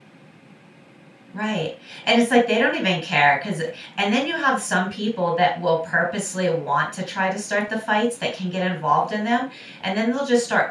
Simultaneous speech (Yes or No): No